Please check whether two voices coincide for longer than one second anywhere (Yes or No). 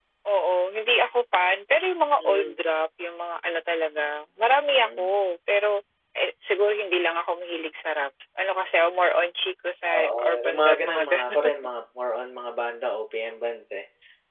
Yes